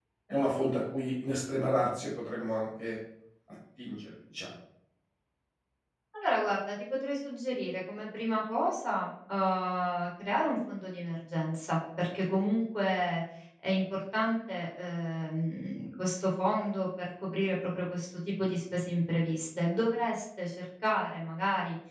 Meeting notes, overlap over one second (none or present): none